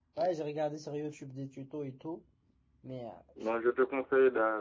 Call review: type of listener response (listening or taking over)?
taking over